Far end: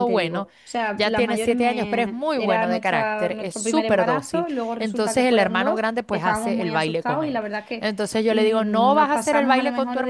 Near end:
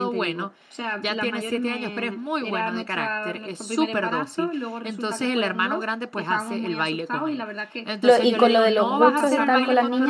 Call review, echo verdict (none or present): present